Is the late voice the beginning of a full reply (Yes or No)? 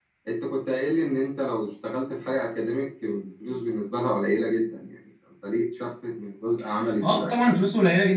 Yes